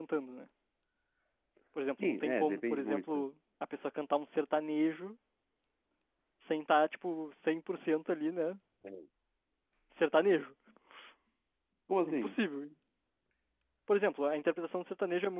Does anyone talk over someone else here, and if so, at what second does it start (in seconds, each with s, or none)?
2.0 s